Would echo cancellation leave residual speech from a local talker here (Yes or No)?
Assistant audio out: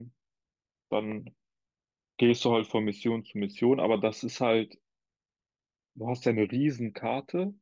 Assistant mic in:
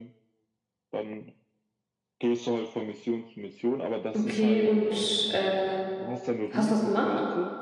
Yes